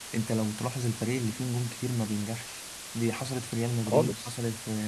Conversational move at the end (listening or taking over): listening